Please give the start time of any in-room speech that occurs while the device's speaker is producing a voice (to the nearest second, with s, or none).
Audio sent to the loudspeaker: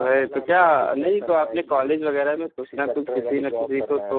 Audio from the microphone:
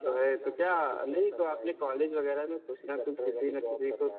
none